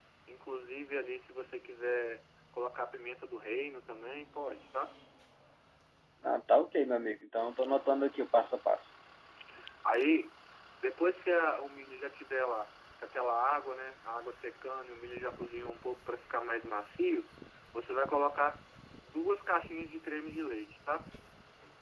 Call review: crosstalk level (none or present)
none